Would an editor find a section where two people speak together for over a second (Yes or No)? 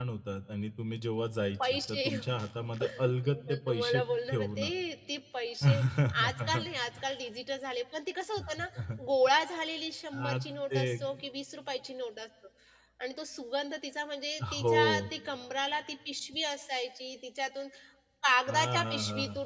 Yes